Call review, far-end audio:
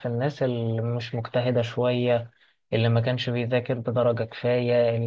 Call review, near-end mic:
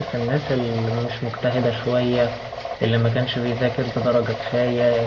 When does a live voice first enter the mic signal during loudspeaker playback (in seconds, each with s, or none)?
none